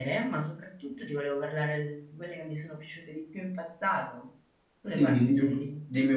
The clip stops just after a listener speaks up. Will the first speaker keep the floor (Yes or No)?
No